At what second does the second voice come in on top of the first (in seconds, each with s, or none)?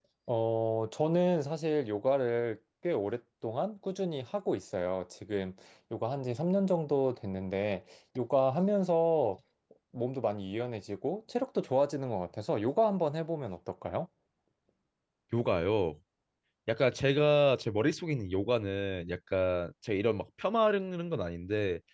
none